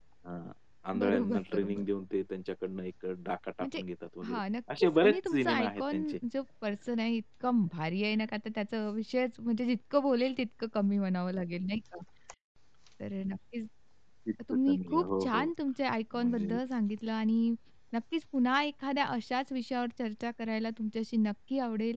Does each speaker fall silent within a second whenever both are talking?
No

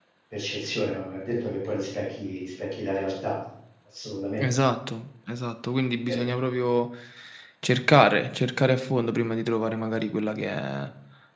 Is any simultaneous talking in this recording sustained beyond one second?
No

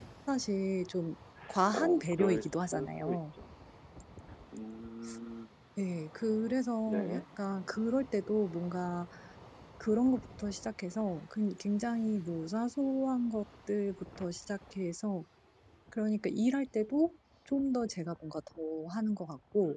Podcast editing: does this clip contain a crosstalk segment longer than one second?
Yes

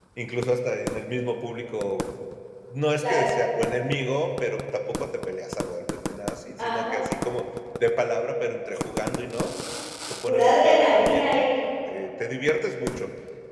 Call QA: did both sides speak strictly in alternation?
No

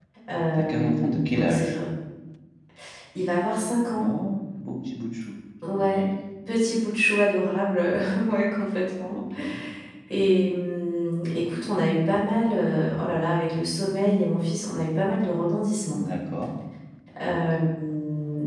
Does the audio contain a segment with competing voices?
Yes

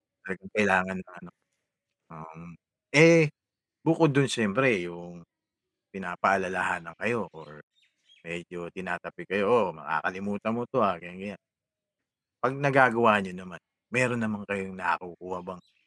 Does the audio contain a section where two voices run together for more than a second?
No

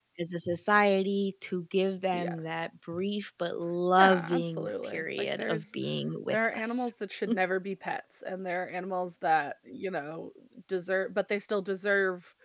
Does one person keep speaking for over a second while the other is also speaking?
Yes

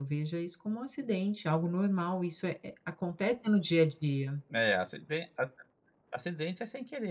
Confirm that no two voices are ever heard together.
Yes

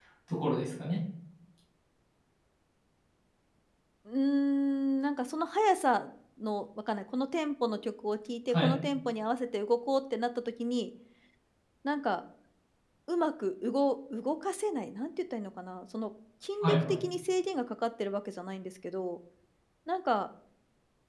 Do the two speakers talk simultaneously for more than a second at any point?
No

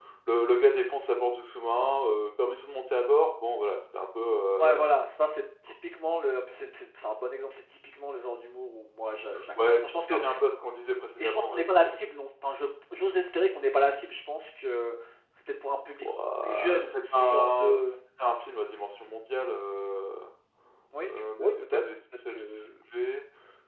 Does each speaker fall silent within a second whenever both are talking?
No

